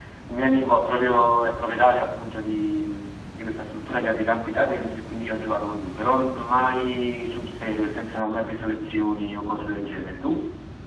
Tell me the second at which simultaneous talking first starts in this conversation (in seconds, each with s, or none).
none